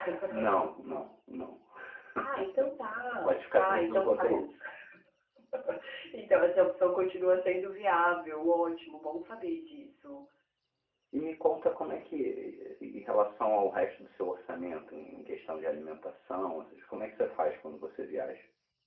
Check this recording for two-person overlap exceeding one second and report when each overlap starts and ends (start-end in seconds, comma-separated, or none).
3.2-4.5